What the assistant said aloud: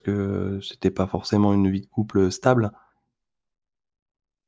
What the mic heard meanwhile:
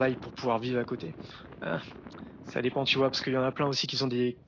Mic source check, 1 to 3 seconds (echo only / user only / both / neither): user only